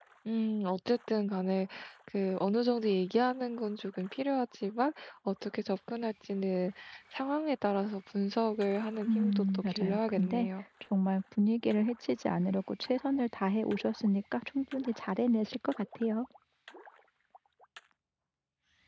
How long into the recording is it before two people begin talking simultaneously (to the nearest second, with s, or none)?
9 s